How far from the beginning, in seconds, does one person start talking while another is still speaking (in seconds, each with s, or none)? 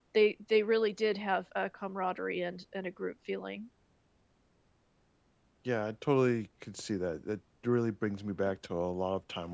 none